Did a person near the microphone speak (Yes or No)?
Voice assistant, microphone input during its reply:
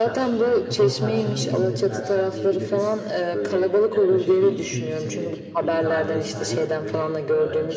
Yes